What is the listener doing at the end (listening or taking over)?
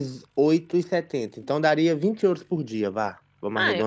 taking over